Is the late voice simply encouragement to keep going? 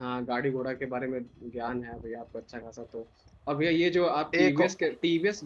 Yes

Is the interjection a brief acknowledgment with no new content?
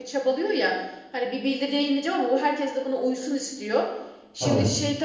Yes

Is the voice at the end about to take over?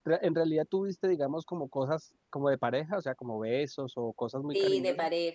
Yes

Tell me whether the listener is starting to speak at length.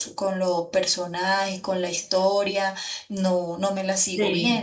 Yes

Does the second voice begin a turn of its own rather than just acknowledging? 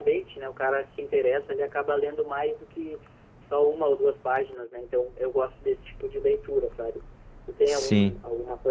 No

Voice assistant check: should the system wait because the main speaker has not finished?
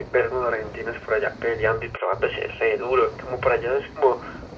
Yes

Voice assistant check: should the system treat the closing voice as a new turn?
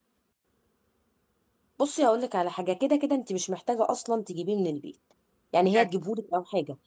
No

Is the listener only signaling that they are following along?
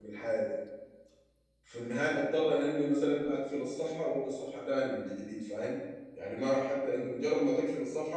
Yes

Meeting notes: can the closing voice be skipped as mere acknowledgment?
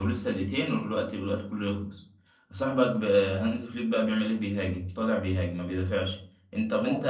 Yes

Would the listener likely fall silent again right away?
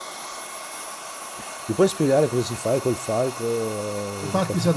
No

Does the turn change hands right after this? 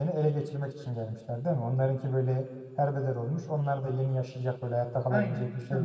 Yes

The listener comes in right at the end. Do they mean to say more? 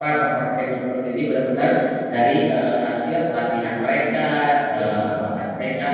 No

